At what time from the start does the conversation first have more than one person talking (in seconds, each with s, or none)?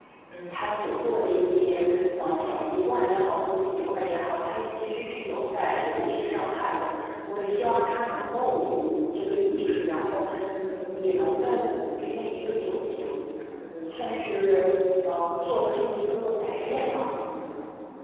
none